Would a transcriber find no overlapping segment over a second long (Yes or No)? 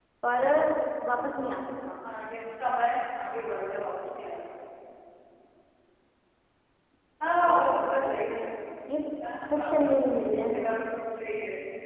No